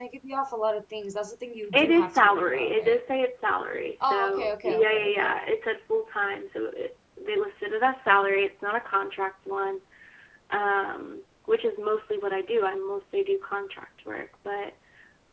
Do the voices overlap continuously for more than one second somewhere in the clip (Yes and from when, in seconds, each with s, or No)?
Yes, from 1.7 s